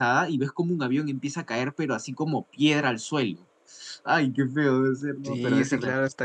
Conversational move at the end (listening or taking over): taking over